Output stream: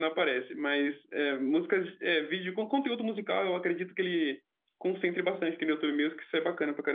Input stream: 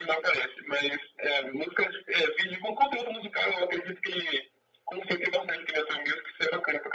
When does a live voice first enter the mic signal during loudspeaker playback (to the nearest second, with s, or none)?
none